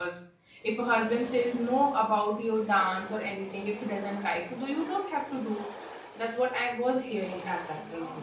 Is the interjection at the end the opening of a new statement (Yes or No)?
Yes